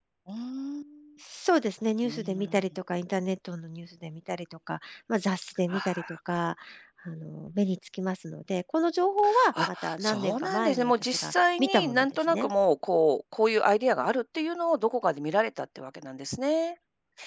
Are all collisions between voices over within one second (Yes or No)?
No